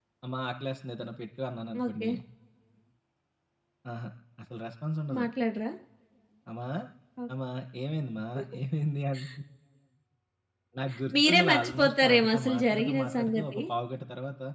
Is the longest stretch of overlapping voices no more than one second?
No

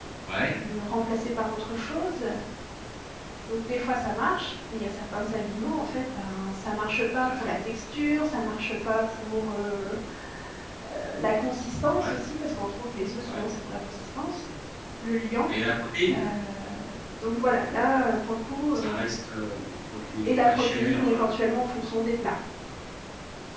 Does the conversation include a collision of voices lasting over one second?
Yes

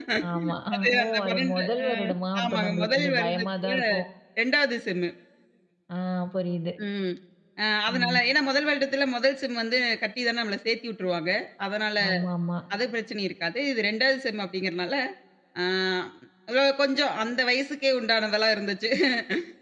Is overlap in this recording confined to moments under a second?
No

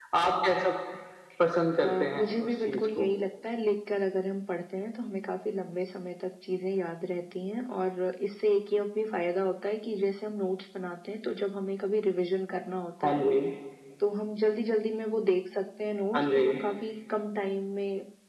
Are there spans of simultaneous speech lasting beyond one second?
Yes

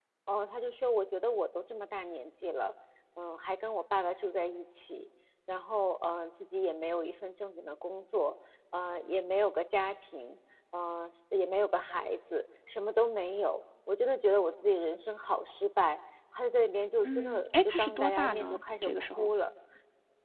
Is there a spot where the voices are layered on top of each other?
Yes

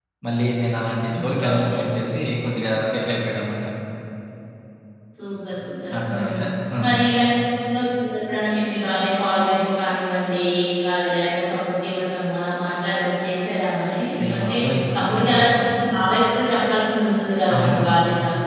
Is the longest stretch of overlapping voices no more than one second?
Yes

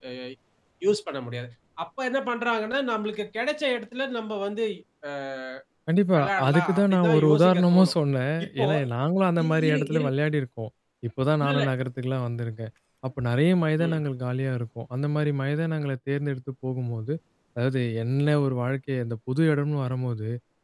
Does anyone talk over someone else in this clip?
Yes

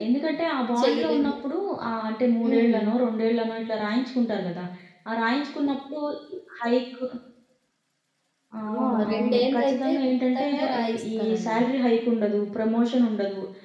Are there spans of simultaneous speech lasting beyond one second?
Yes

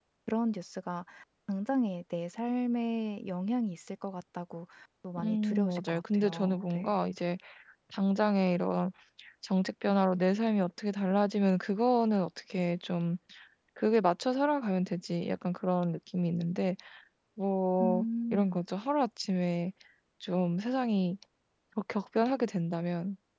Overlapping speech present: Yes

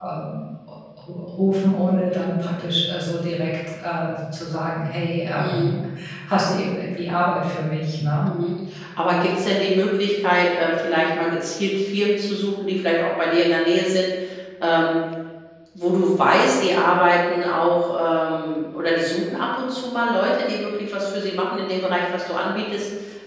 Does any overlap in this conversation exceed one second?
No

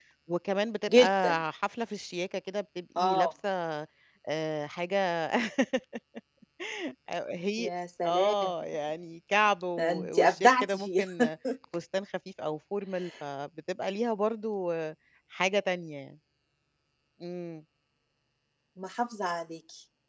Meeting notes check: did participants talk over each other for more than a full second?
Yes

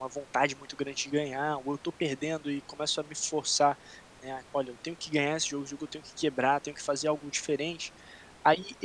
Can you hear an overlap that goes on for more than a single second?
No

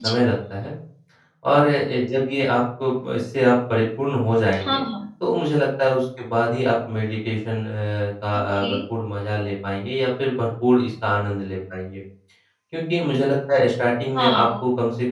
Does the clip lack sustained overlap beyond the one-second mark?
Yes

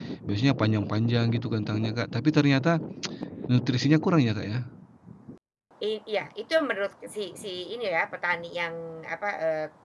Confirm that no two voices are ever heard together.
Yes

